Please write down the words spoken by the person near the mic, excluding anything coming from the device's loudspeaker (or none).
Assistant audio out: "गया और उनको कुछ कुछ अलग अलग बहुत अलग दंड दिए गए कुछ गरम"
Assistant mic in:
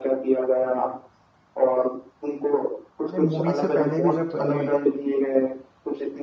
मैंने मूवी से पहले भी जब मैंने